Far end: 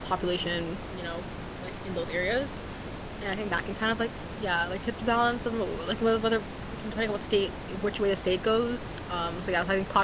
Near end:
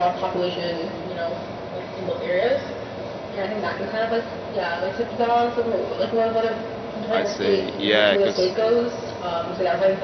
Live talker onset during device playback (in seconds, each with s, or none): 7.1 s